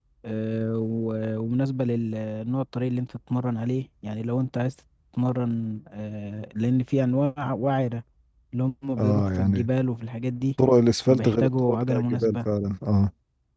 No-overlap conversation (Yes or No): No